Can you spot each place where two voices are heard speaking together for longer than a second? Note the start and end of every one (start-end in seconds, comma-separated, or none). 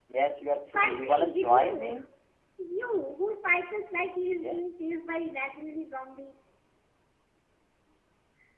0.7-2.0